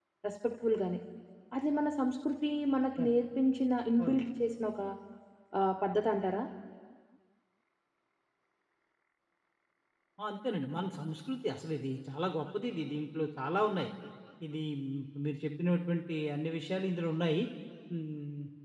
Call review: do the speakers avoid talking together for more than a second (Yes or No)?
Yes